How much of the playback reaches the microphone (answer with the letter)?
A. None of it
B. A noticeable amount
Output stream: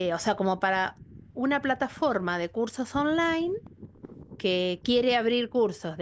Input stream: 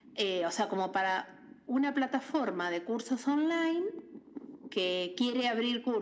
B